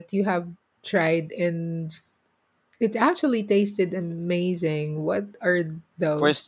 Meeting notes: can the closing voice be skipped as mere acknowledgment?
No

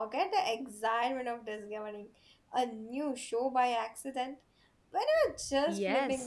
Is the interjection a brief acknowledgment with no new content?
No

